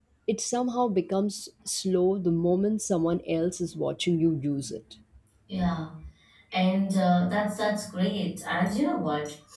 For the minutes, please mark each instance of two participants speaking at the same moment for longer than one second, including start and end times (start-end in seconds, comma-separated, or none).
none